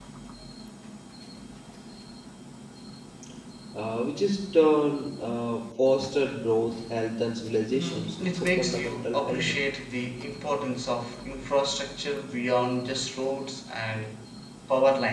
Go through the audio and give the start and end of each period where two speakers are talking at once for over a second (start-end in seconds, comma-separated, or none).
7.7-9.6